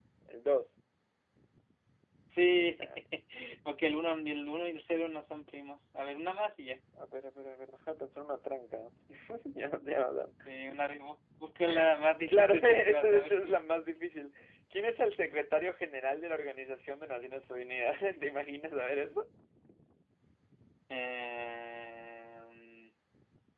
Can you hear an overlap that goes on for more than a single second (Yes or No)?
Yes